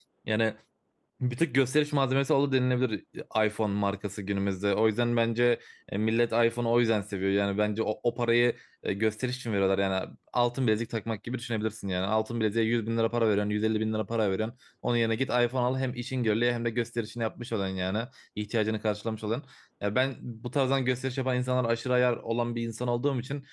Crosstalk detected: No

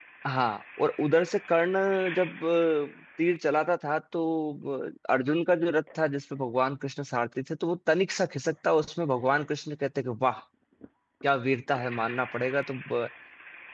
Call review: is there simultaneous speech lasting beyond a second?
No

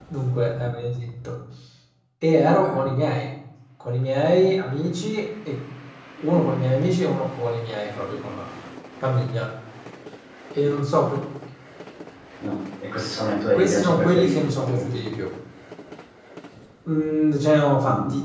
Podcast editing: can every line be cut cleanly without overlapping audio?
No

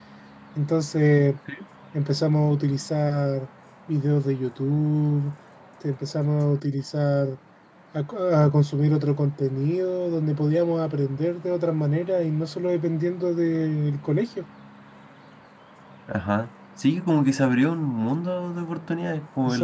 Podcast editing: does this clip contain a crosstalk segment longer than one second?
No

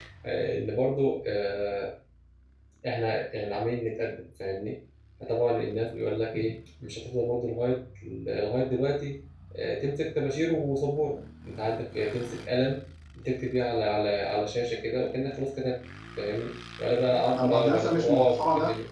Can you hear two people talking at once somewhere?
Yes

